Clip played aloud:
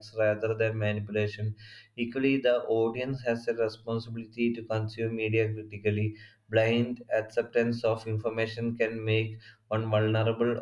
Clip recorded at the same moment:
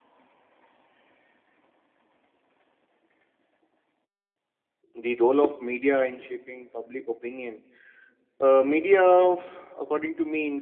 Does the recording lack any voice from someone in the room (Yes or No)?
No